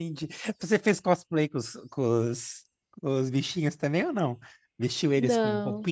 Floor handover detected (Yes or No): No